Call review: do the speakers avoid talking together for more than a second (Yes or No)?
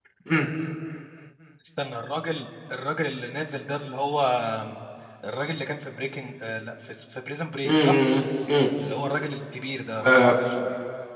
Yes